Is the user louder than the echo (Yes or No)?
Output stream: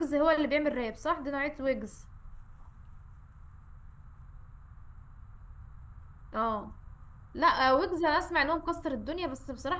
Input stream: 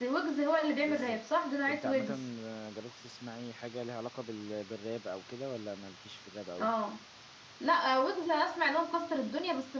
No